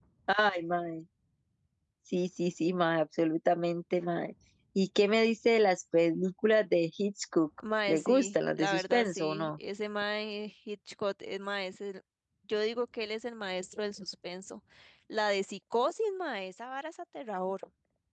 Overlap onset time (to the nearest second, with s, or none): 8 s